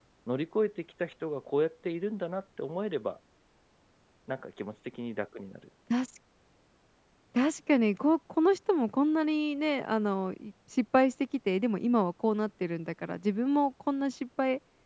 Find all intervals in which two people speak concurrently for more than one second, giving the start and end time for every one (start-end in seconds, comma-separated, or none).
none